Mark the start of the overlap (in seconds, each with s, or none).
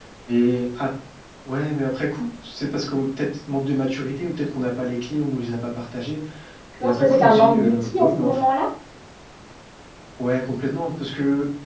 6.8 s